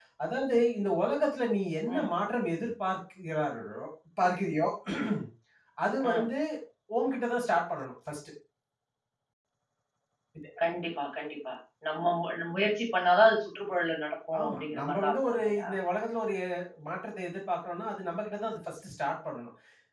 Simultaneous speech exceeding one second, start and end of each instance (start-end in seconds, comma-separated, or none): 14.4-15.7